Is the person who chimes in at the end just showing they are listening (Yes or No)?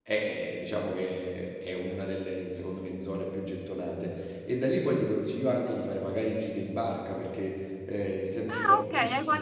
No